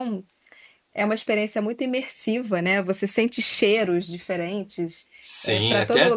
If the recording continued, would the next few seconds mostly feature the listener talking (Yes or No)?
Yes